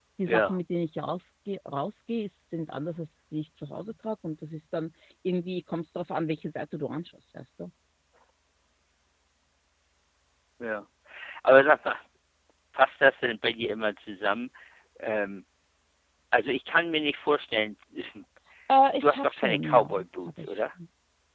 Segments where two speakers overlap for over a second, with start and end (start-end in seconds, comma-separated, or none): 19.0-20.5